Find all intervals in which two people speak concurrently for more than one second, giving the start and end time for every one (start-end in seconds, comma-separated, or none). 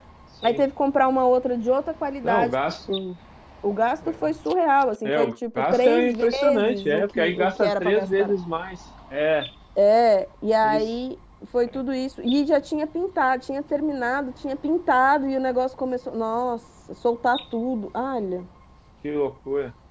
5.2-8.3